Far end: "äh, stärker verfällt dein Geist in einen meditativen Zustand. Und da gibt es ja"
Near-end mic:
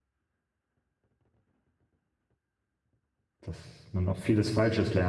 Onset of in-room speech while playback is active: 3.4 s

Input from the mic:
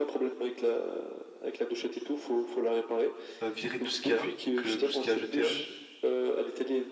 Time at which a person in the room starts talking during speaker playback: 3.4 s

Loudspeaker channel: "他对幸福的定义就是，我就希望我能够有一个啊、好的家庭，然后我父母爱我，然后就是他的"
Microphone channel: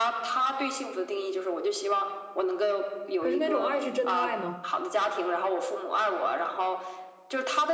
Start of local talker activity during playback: 3.2 s

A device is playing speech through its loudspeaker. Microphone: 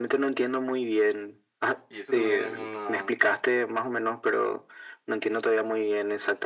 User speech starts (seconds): 1.9 s

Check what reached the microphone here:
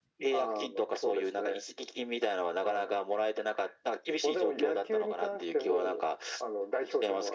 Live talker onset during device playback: none

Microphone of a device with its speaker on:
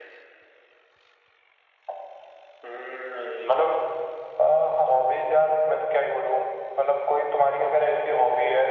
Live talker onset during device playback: none

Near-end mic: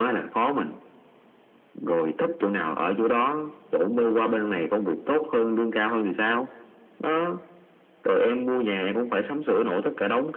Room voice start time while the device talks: none

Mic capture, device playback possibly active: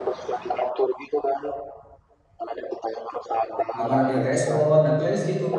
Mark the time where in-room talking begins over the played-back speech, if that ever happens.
3.8 s

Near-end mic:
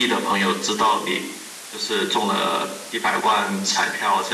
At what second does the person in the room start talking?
none

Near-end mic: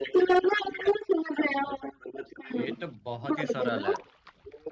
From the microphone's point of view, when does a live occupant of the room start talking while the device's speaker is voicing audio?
2.6 s

